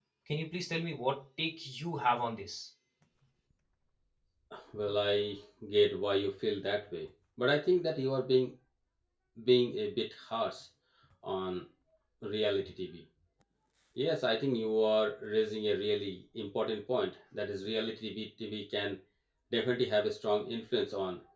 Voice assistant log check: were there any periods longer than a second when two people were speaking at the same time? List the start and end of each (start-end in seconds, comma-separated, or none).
none